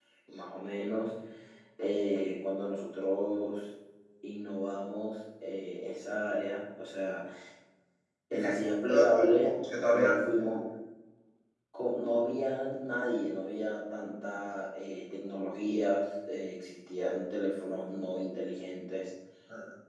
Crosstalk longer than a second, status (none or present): present